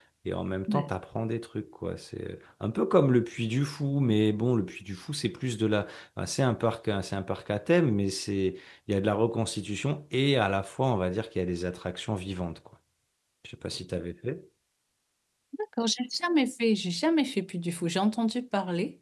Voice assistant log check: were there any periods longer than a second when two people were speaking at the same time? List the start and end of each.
none

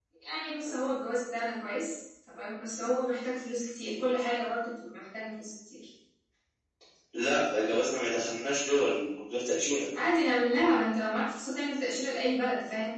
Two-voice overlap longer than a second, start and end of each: none

